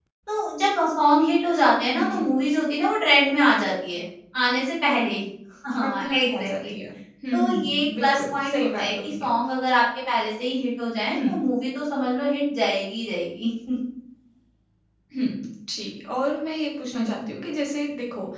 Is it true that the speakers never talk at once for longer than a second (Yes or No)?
No